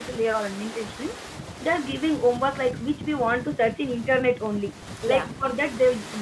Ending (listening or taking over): listening